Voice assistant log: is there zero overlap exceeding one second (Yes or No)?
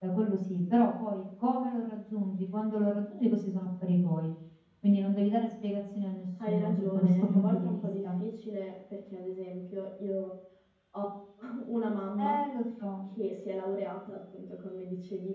No